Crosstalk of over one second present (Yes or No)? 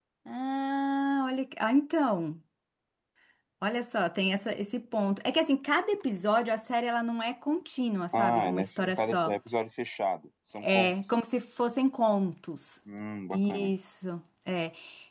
Yes